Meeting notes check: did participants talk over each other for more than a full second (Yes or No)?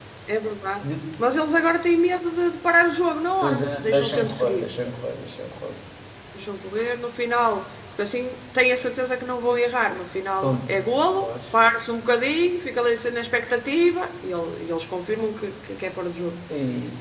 Yes